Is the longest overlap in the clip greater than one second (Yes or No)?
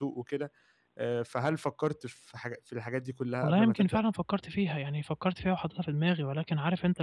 No